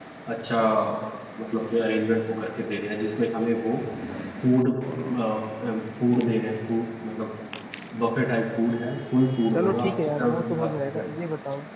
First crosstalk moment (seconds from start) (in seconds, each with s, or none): 9.5 s